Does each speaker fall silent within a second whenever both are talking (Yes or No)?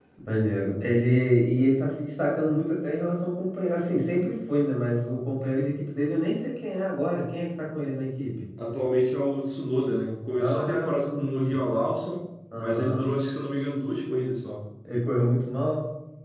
No